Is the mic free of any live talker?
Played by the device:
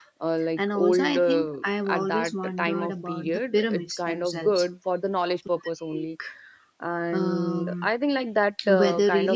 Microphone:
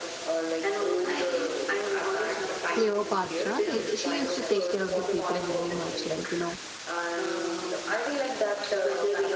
No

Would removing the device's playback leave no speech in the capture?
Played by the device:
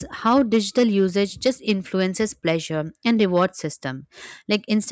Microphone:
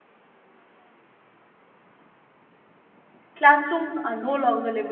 No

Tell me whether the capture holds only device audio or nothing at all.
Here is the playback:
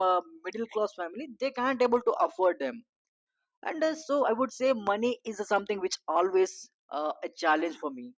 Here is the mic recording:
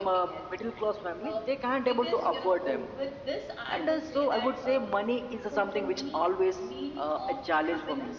No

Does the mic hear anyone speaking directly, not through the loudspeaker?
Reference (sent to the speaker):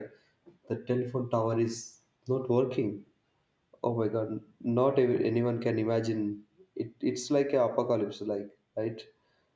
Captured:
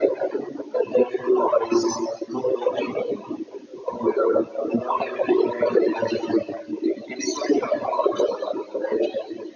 No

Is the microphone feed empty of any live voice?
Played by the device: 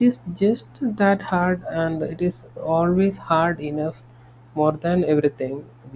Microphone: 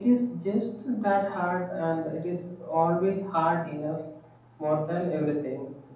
Yes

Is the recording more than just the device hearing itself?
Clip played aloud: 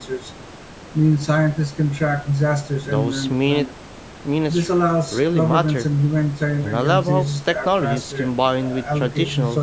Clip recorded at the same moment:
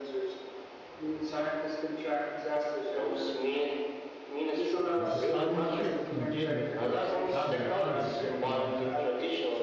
Yes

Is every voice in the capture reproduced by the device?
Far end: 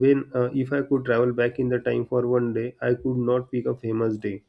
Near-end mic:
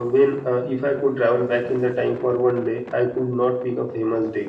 Yes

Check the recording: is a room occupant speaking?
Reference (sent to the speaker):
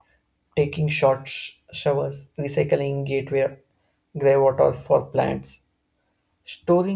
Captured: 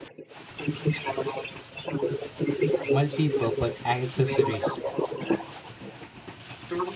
Yes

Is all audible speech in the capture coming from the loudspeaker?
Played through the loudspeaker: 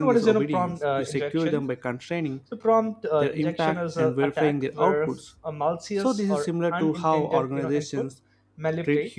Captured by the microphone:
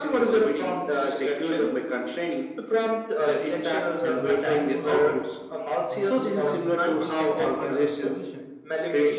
No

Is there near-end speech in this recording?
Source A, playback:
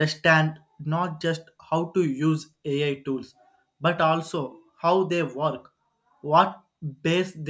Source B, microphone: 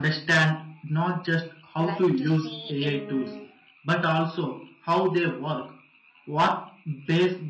Yes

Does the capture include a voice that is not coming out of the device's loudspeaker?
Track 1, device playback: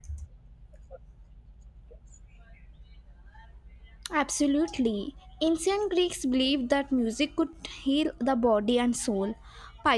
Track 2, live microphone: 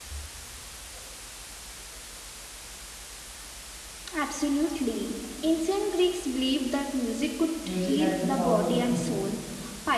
Yes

